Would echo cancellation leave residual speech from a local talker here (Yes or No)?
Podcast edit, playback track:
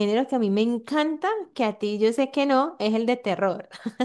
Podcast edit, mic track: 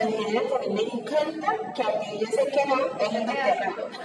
Yes